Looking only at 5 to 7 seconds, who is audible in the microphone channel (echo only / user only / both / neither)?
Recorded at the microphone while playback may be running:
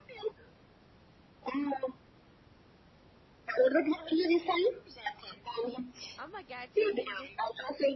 both